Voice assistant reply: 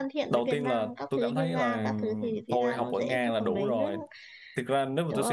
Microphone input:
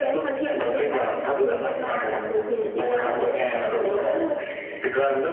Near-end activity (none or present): none